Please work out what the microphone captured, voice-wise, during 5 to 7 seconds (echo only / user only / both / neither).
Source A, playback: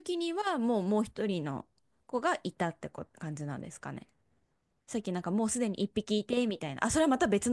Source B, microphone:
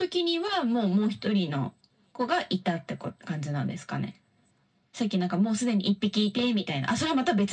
echo only